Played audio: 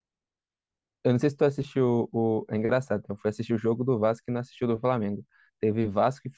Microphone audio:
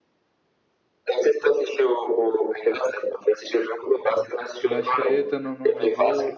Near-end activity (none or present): present